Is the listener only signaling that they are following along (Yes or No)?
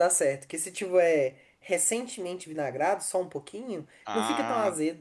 No